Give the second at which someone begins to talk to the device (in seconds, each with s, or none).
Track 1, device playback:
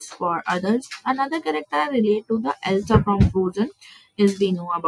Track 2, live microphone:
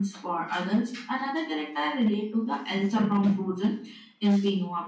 none